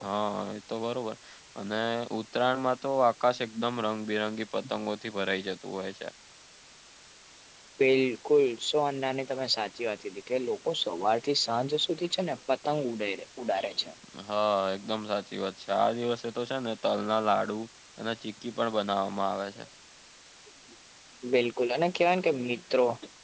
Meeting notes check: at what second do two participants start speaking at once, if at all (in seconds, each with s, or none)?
none